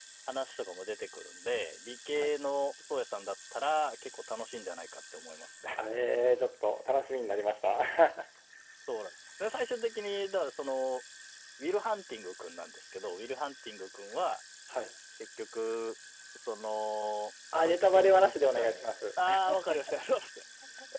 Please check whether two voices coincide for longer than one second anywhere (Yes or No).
Yes